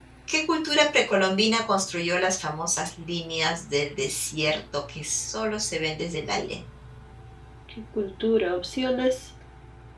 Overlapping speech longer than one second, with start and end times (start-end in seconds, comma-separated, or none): none